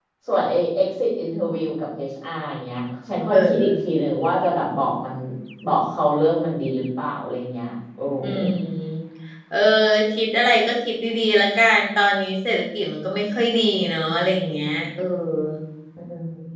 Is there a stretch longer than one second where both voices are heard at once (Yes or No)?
No